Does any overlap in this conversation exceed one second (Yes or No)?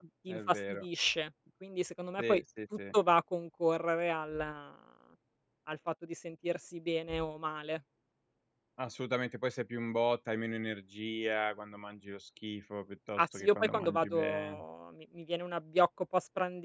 Yes